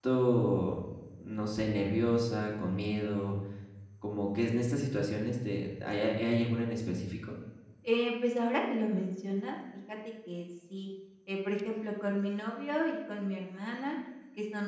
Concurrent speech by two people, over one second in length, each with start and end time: none

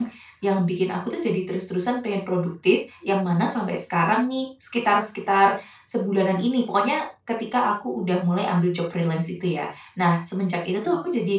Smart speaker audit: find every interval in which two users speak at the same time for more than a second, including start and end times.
none

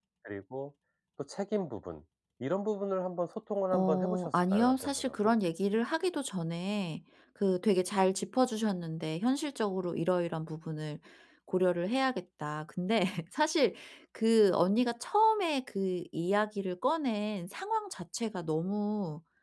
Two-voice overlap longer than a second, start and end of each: 3.7-5.3

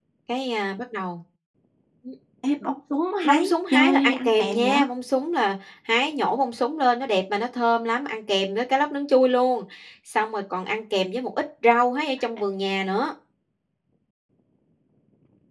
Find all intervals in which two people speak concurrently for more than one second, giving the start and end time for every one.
3.2-4.8

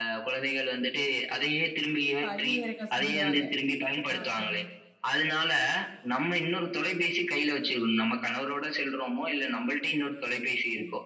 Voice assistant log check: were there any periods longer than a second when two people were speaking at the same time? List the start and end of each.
none

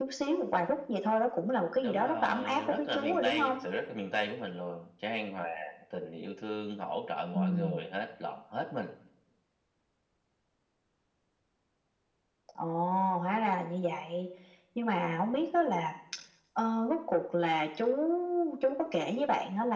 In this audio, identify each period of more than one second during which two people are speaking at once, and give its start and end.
1.8-3.6

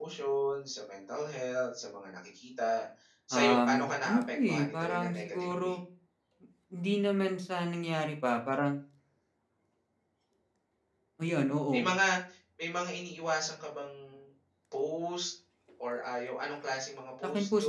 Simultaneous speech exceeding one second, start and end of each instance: 3.3-5.8

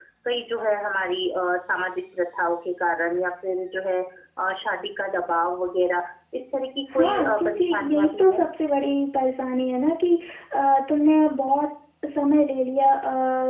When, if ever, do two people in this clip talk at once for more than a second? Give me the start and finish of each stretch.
6.9-8.4

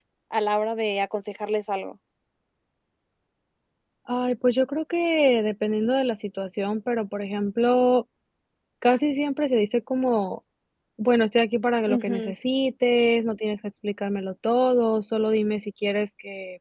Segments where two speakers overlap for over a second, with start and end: none

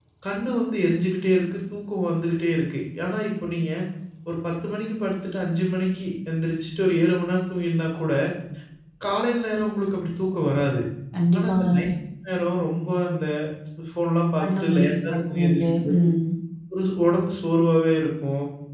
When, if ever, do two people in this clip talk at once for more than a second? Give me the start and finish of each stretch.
14.4-16.0

